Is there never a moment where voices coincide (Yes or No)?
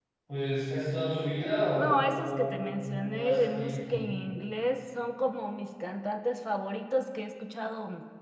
No